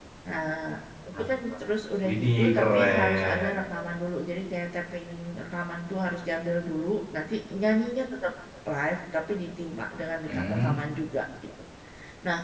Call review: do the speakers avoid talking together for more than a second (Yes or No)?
No